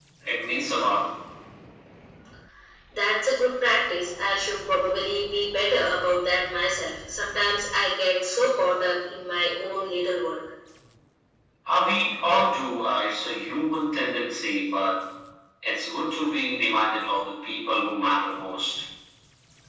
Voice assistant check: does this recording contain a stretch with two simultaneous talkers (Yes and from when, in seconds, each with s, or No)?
No